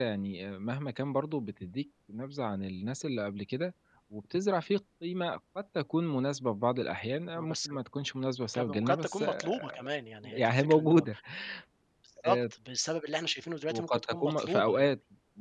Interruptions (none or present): present